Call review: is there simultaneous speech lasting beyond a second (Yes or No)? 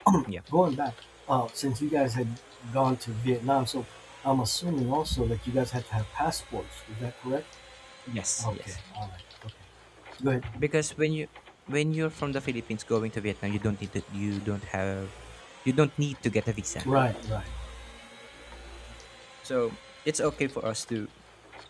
No